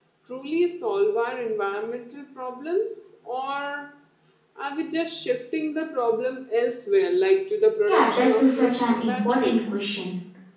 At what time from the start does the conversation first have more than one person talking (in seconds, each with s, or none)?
7.9 s